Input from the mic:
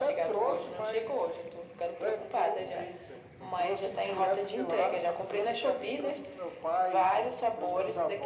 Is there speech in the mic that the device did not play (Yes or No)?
No